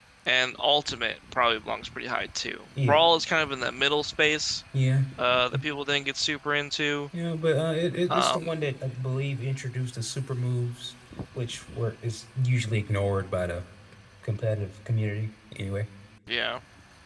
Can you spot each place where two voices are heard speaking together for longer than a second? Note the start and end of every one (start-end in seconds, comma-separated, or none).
none